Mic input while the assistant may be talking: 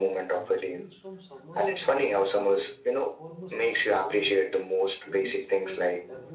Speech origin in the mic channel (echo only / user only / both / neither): both